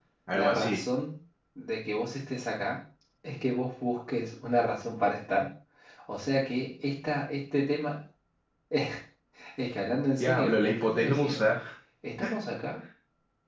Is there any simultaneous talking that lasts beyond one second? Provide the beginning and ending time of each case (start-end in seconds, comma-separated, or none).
10.2-11.6